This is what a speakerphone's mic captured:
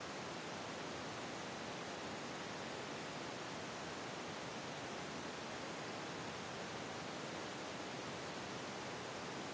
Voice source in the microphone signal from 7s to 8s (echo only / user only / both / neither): neither